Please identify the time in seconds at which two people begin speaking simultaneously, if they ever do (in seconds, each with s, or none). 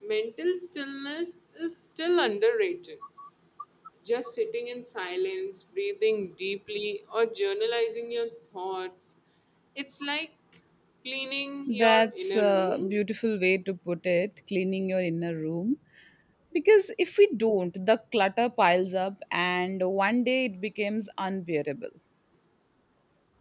11.7 s